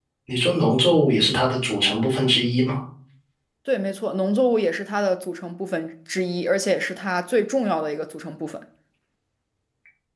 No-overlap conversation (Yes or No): Yes